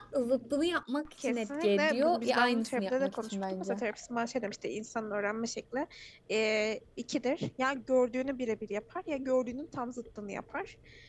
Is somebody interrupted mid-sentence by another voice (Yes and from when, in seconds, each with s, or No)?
Yes, from 1.2 s